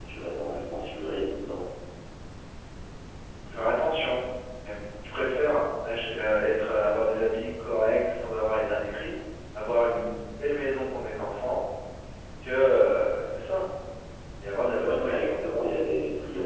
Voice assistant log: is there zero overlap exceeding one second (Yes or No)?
Yes